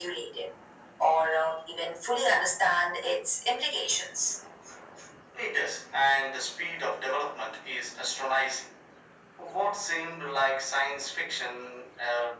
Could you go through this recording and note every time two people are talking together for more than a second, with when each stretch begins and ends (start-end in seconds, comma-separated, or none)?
none